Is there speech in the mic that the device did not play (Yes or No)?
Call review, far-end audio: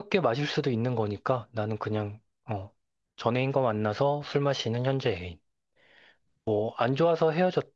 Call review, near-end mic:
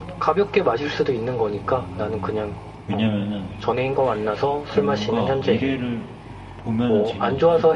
Yes